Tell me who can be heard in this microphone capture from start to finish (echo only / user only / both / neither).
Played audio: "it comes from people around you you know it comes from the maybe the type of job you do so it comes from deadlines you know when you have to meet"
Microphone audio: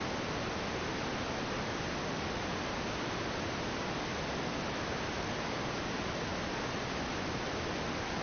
neither